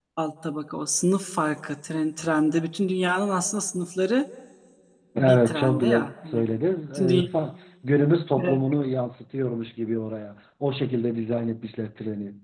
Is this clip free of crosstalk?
No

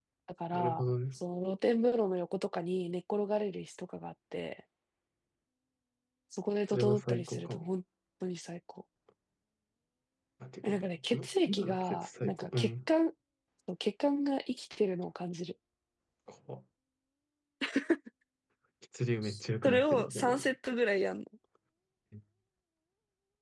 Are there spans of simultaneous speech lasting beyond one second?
Yes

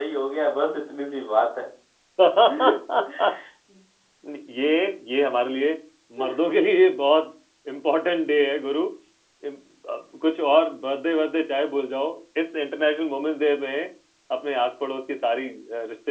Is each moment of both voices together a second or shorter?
Yes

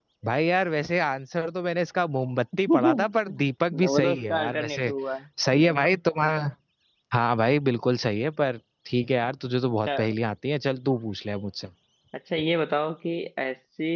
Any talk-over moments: Yes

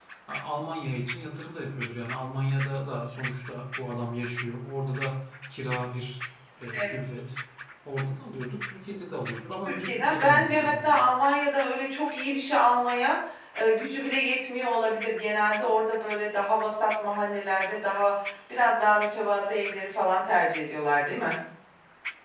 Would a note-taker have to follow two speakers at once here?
Yes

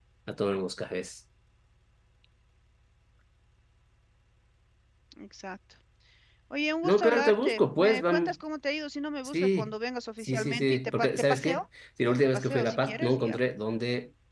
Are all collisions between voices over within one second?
No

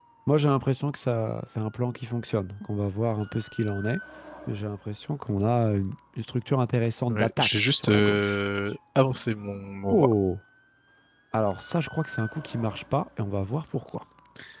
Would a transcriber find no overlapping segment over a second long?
No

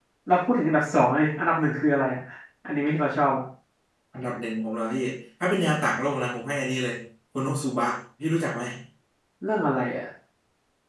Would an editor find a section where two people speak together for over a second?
No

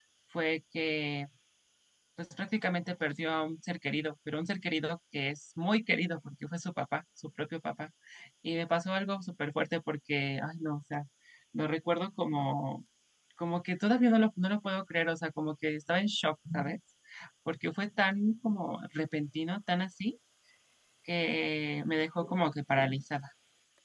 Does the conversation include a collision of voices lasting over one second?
No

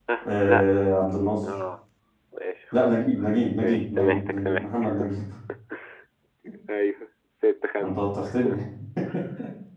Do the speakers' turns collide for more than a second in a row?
Yes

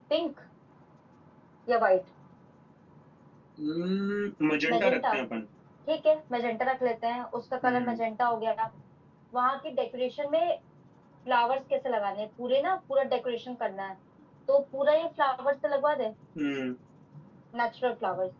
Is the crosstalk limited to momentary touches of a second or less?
Yes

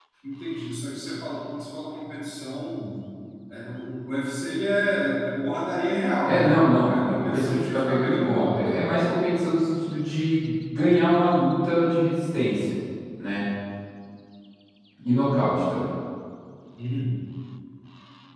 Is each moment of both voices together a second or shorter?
No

